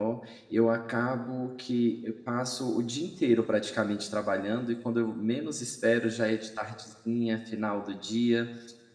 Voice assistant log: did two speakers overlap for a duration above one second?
No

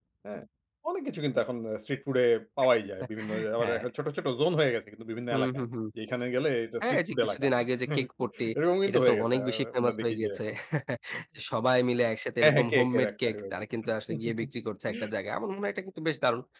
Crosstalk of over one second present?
Yes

